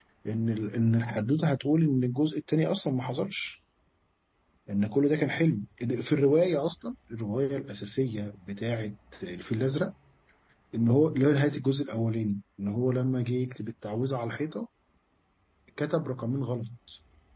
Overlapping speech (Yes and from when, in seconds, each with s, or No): No